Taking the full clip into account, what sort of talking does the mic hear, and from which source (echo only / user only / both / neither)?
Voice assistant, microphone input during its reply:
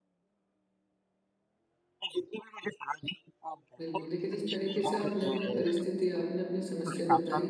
both